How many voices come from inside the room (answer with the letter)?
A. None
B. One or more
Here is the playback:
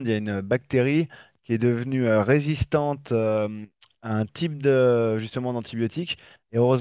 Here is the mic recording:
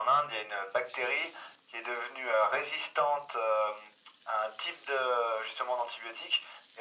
A